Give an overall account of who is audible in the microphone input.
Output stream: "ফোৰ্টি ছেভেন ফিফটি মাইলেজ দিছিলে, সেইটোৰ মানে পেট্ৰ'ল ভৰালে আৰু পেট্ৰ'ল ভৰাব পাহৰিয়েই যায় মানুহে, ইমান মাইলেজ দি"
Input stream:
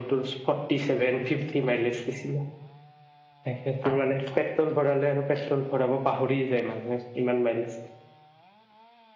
echo only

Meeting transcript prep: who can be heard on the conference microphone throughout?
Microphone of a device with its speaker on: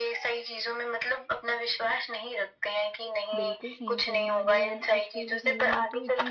both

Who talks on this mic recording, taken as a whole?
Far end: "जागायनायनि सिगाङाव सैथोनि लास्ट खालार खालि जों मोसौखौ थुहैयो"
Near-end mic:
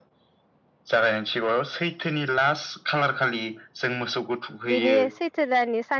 both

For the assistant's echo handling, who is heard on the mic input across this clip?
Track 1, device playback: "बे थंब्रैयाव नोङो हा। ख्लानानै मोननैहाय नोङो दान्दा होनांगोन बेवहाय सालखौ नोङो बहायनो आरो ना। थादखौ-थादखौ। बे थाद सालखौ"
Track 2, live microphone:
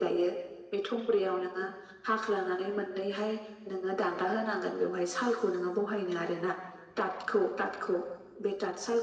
echo only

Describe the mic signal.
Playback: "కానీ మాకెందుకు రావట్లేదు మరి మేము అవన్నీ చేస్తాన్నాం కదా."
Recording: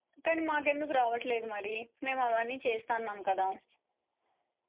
echo only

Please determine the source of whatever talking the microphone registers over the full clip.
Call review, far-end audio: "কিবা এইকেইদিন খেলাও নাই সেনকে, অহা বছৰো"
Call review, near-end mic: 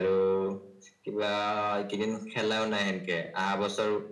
echo only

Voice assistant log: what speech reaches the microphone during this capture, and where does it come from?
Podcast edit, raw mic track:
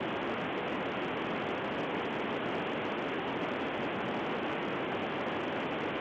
neither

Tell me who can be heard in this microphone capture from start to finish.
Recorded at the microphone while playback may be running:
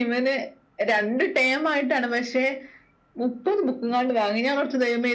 echo only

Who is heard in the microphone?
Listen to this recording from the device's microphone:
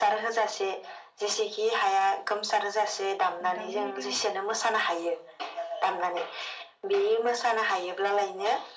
both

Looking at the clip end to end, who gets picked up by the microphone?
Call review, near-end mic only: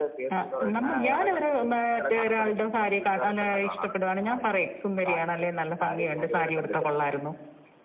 echo only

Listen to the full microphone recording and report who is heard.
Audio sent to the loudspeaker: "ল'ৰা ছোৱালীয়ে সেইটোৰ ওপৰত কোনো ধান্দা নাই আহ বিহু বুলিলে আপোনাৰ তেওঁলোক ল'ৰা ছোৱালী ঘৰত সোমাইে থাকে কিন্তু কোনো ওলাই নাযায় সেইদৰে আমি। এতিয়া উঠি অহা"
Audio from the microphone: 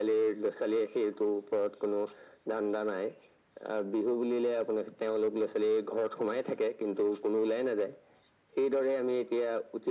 echo only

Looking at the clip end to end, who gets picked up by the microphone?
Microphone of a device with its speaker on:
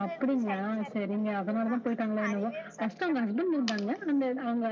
both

